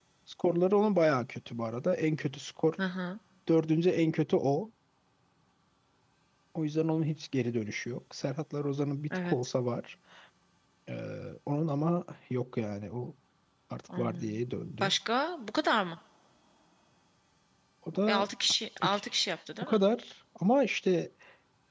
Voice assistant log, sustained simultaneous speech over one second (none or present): none